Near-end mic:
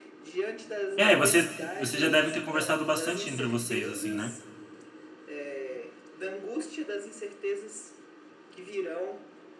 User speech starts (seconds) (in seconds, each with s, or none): 1.0 s